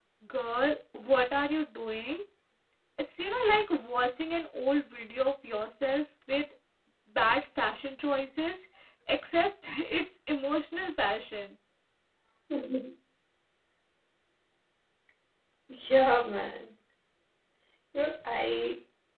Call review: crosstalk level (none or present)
none